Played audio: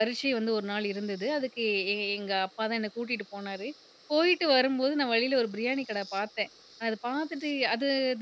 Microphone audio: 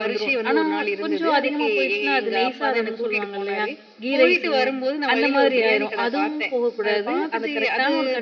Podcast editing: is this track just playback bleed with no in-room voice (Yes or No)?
No